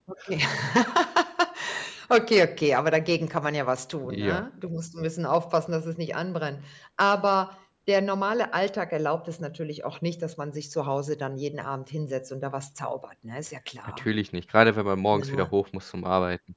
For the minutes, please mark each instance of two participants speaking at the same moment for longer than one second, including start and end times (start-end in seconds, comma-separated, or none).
none